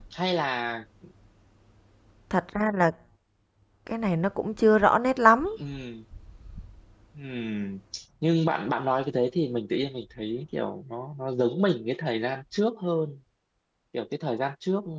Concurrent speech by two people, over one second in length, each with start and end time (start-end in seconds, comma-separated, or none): none